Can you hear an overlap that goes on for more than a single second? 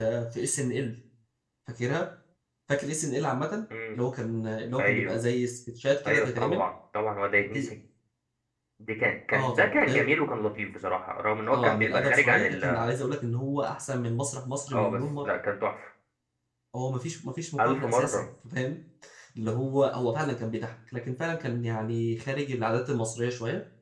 Yes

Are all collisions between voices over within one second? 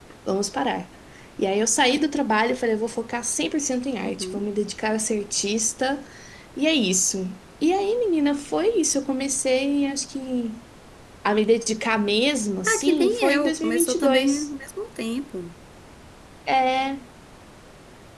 No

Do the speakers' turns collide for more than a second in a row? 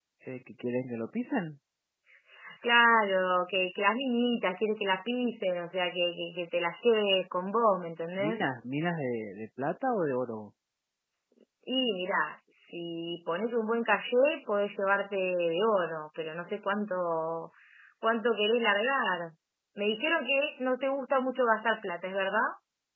No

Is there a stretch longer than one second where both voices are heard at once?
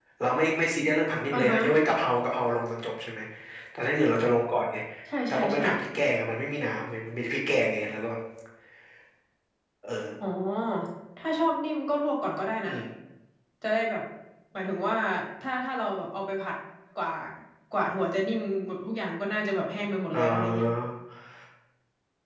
No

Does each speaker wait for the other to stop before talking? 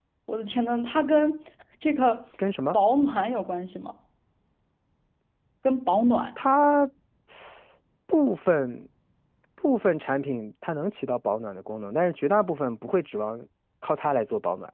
Yes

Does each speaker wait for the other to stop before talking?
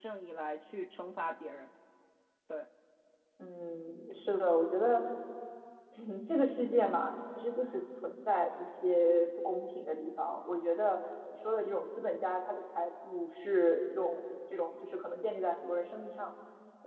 Yes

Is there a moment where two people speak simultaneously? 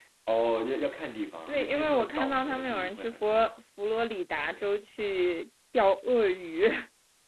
Yes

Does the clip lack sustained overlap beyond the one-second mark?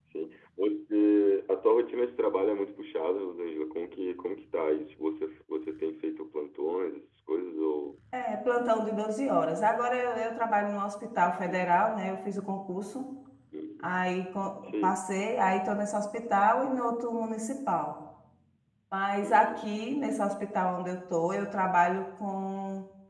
Yes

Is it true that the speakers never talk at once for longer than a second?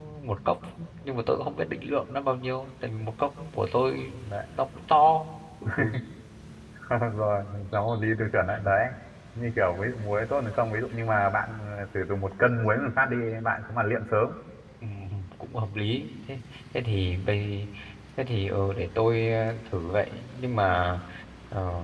Yes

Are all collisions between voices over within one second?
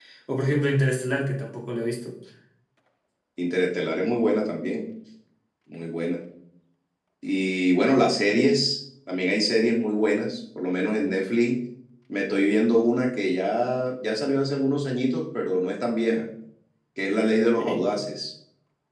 Yes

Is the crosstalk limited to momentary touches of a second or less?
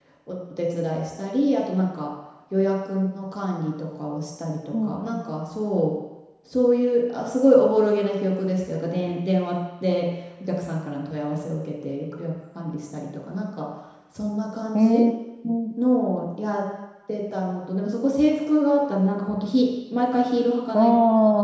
Yes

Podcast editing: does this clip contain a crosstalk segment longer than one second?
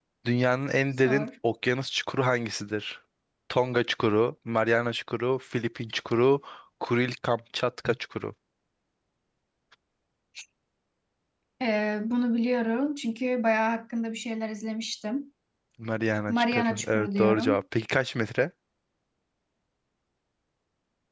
Yes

